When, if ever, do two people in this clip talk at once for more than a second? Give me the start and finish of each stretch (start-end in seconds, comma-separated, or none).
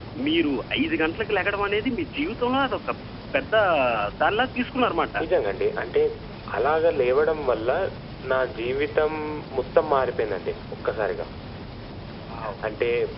none